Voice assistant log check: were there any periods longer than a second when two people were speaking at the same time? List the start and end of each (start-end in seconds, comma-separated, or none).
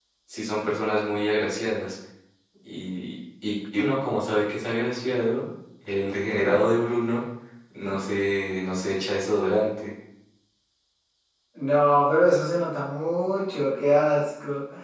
none